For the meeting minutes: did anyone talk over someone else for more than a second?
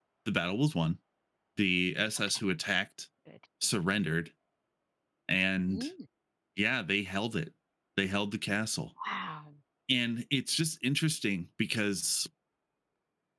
No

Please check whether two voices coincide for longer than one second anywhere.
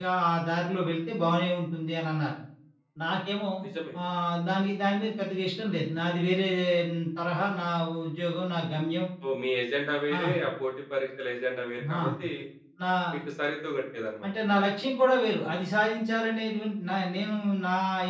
No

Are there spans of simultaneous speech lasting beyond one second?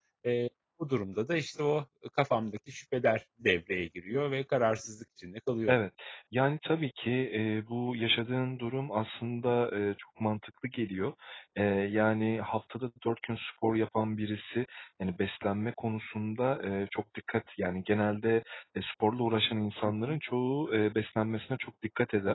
No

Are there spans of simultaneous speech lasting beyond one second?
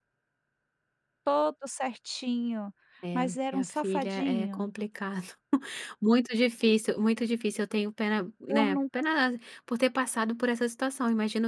Yes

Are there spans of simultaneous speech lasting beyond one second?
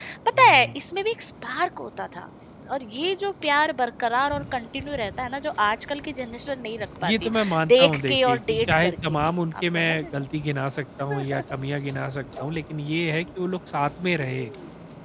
Yes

